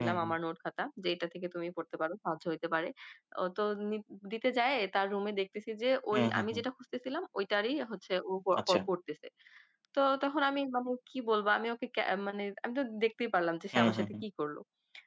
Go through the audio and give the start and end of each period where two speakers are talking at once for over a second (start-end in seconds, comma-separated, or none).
none